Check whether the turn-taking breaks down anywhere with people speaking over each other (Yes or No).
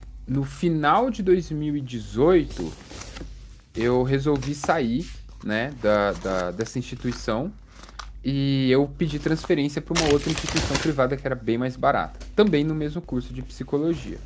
No